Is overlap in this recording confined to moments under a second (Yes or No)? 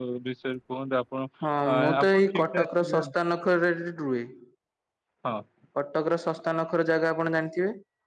No